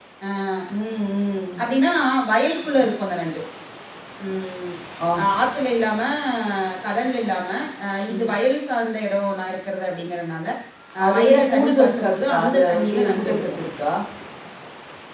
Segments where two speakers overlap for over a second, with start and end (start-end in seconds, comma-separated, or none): 11.1-13.4